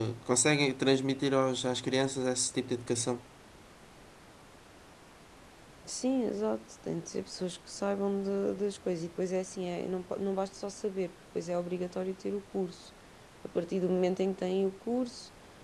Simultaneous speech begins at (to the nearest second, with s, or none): none